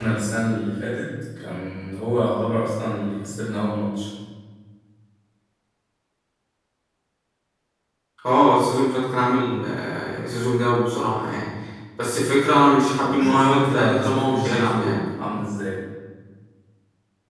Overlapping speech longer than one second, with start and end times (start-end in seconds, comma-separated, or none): 13.0-15.0